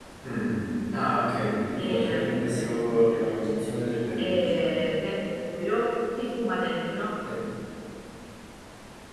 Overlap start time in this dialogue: 2 s

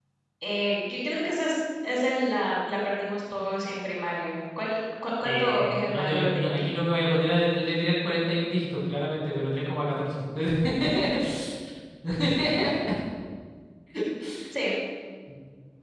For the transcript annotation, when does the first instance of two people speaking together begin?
5 s

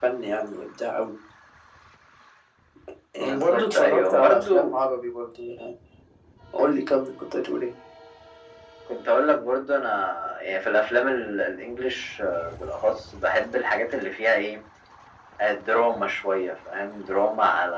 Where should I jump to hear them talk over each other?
3 s

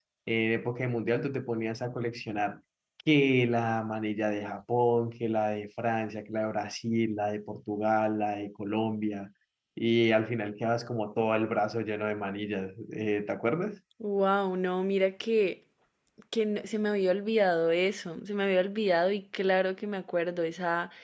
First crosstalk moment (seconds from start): none

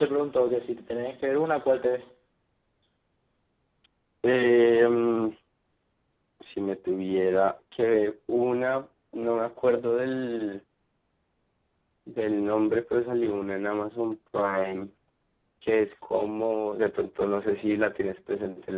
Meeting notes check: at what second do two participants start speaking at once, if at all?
none

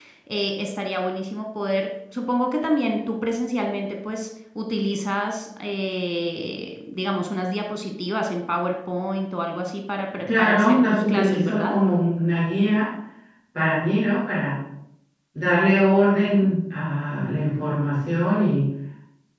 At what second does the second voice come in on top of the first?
10 s

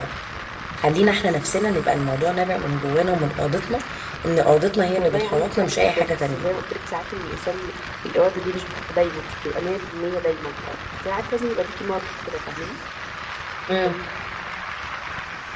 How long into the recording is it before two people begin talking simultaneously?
5 s

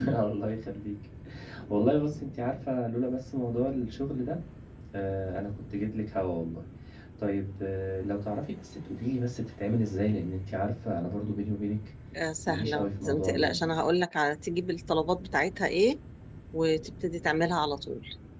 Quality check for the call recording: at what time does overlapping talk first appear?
12 s

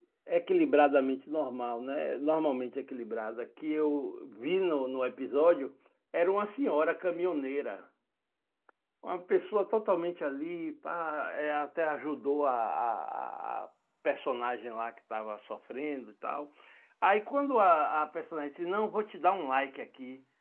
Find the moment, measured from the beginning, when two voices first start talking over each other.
none

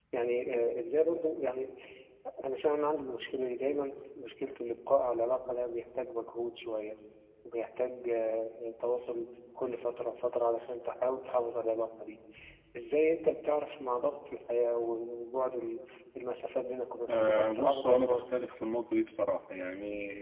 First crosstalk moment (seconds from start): 17 s

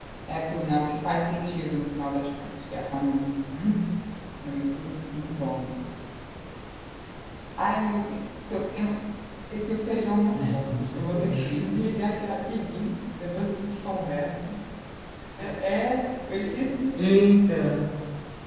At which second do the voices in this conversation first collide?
10 s

